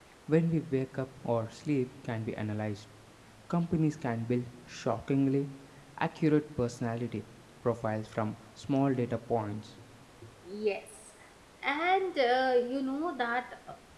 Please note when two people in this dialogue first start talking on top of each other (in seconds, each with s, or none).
none